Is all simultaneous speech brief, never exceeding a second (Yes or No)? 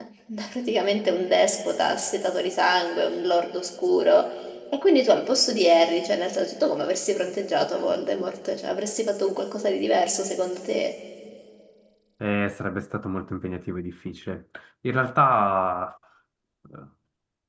Yes